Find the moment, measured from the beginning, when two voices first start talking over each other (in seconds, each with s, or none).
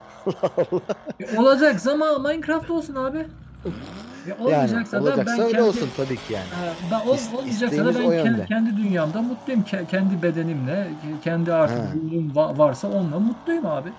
4.5 s